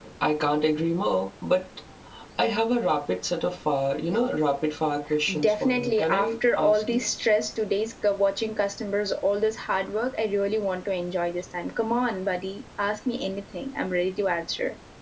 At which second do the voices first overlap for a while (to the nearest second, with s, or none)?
5 s